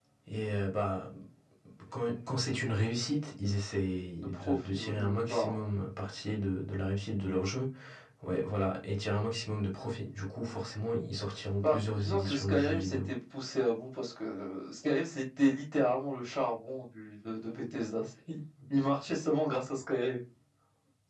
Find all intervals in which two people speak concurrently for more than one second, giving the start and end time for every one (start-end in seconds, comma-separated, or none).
4.2-5.5, 11.6-13.0